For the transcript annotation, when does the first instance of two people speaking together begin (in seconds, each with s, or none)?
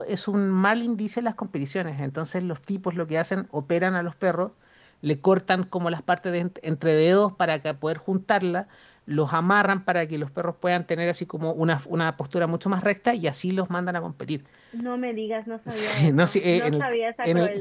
15.7 s